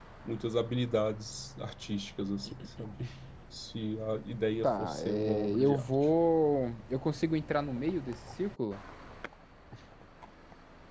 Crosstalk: present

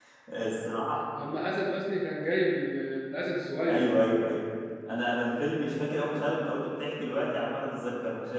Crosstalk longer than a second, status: none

